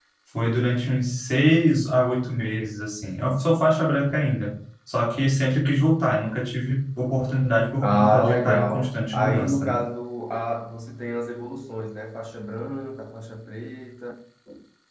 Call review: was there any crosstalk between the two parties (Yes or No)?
Yes